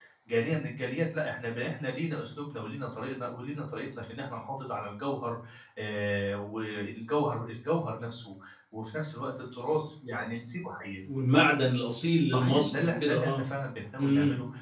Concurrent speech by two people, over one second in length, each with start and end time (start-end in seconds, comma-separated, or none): 12.2-13.4